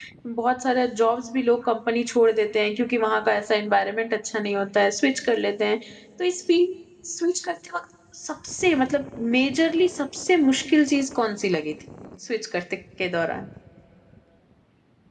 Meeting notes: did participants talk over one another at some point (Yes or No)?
No